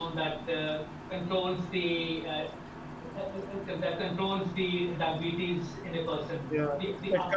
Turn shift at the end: Yes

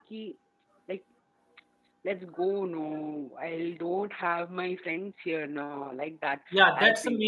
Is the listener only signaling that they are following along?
No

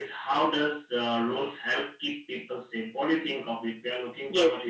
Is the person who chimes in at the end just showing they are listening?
No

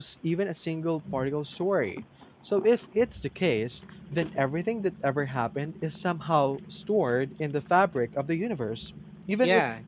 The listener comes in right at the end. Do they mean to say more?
Yes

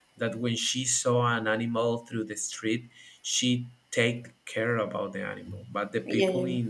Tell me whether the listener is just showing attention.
Yes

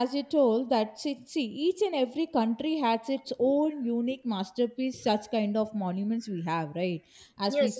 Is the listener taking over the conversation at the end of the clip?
No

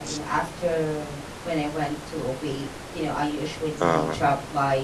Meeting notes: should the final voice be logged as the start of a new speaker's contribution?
No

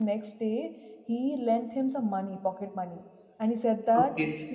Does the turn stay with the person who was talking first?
Yes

